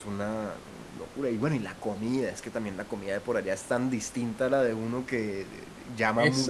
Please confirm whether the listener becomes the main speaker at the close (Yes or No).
Yes